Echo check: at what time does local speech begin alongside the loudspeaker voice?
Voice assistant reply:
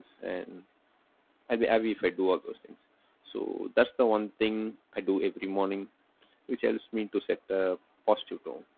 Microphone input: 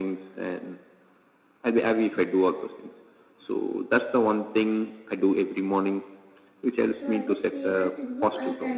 6.9 s

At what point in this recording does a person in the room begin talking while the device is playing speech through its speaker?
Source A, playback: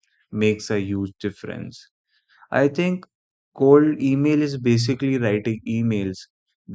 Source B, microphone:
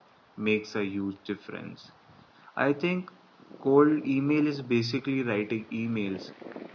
none

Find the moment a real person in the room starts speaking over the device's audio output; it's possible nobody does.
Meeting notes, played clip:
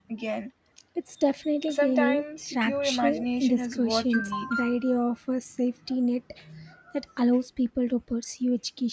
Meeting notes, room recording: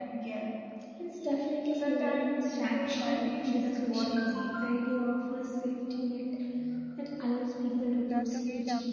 7.8 s

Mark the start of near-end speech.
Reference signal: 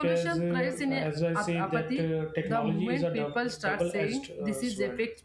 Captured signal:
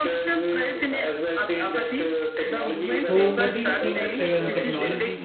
2.9 s

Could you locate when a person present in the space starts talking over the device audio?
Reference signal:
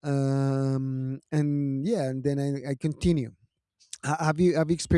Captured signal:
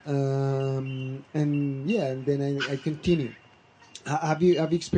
none

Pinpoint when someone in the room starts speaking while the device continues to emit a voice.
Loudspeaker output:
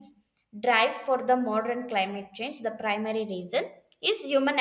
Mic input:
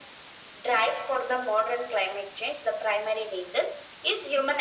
none

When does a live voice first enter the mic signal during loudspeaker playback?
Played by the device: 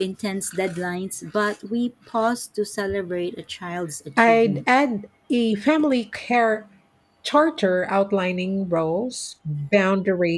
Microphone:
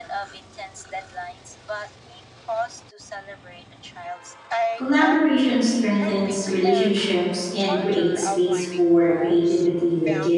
4.7 s

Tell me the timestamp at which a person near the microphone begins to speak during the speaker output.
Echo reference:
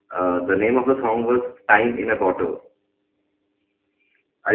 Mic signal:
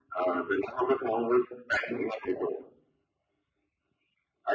none

